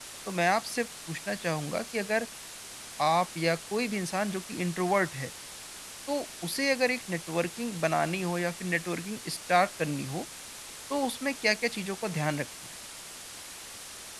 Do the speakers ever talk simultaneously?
No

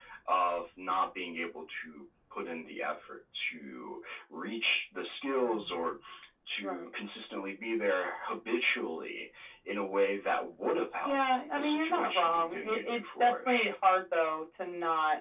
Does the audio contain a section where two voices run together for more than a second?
Yes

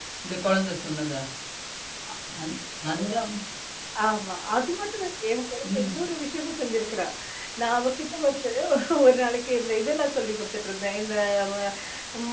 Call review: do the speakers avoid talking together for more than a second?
Yes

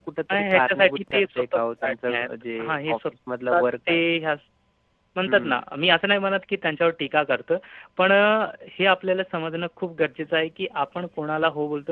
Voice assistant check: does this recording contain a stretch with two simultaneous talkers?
Yes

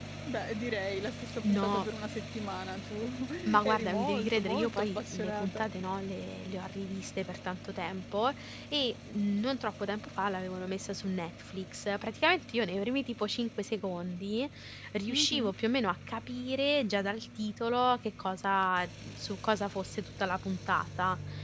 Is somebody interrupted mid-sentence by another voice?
Yes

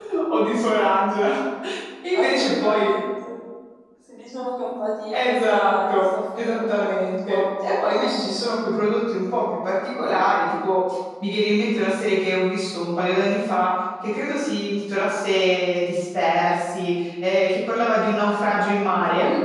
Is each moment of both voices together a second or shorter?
No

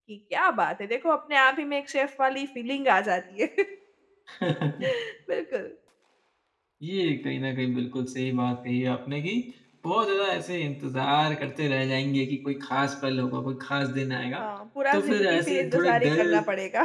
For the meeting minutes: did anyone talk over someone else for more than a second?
Yes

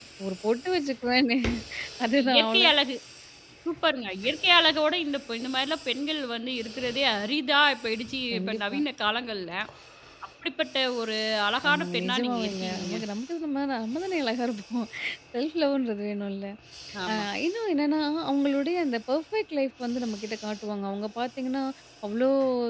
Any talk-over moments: Yes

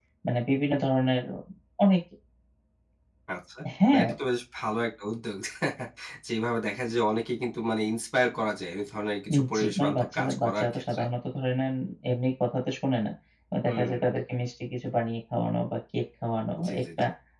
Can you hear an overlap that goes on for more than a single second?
Yes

